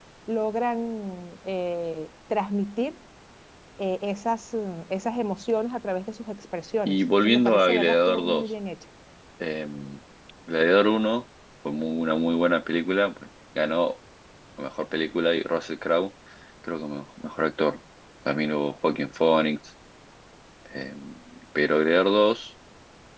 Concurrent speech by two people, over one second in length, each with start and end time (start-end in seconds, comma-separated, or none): 6.8-8.5